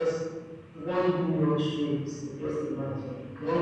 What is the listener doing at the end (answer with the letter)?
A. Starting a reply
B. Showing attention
A